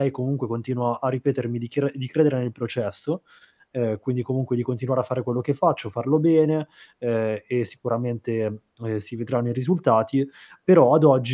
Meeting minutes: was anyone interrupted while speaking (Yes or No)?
No